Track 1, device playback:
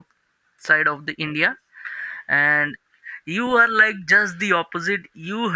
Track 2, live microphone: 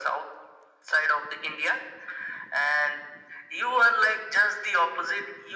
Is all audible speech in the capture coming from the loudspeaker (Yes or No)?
Yes